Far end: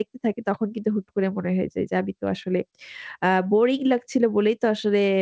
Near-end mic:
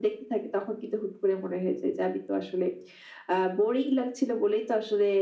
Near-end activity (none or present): none